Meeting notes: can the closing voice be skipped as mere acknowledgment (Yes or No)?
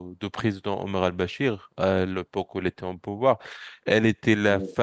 Yes